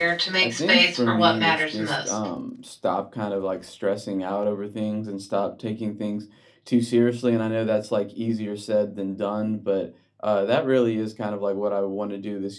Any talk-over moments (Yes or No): Yes